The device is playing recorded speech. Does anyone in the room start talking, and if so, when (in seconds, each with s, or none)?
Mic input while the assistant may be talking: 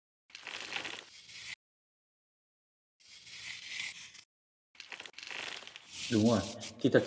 6.1 s